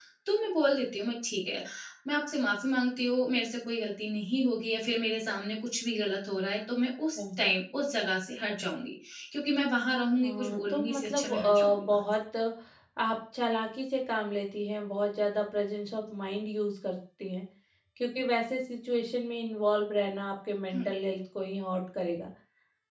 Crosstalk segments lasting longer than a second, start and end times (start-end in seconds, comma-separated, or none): 10.2-11.9